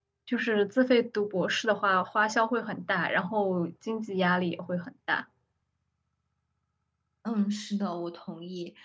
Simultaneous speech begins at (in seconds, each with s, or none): none